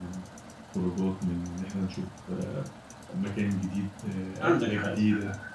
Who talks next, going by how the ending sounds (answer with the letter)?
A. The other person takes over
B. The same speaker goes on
A